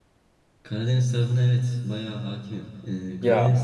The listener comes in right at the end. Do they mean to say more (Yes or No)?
No